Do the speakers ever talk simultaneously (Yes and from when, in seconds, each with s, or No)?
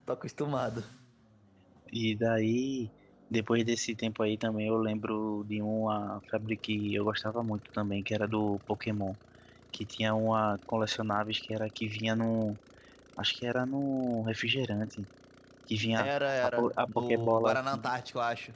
Yes, from 16.0 s